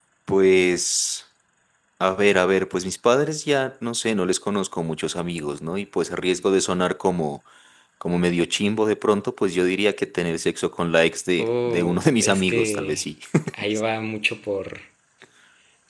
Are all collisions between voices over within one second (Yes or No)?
No